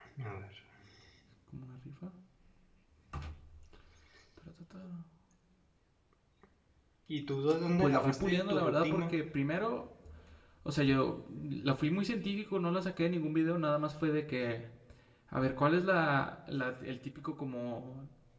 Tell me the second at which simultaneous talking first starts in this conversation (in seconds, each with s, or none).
7.8 s